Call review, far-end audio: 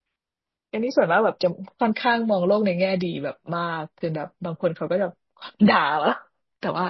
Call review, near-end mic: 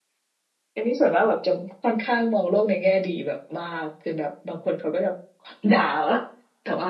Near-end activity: none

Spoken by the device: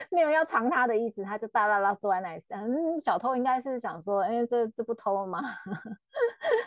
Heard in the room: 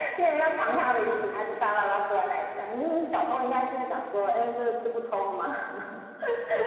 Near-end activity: none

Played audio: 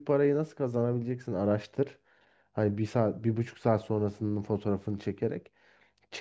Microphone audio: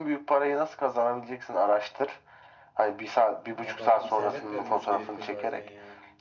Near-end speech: present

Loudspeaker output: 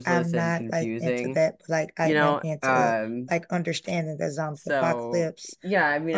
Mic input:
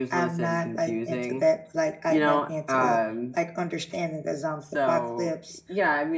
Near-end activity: none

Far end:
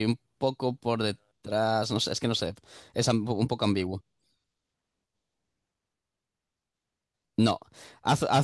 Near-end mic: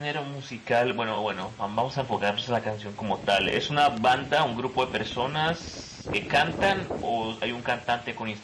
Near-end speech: present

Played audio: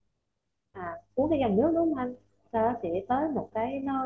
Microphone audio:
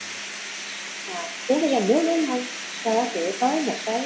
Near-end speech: none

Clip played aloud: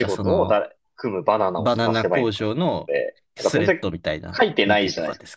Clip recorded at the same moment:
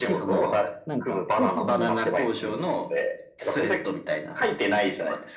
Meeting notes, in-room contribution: present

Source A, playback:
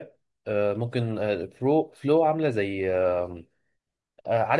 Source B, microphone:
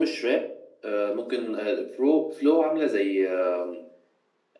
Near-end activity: none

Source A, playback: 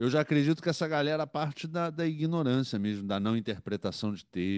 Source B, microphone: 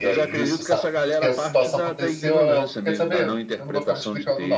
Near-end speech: present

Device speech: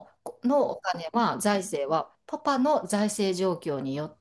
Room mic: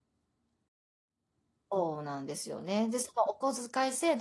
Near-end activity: present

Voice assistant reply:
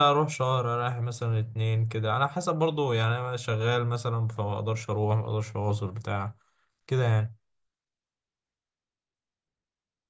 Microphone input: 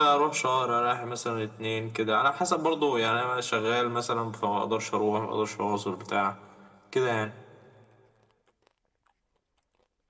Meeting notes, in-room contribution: none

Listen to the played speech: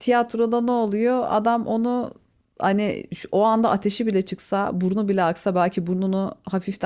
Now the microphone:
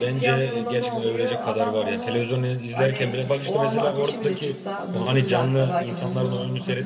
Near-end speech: present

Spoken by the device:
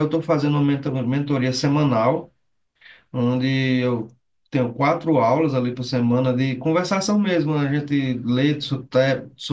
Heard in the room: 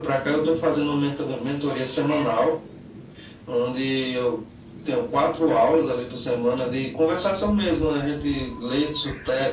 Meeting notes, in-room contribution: none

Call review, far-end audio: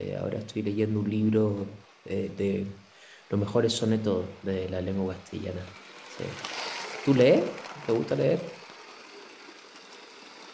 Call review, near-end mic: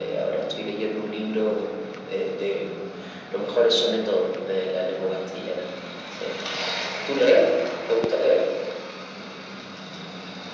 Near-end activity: none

